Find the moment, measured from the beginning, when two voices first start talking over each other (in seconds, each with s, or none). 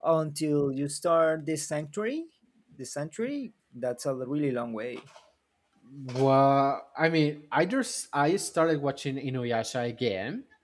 none